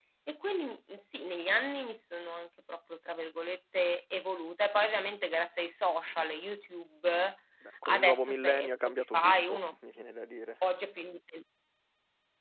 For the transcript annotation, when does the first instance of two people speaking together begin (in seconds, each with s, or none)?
7.8 s